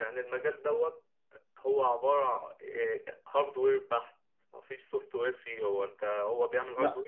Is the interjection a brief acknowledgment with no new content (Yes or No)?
Yes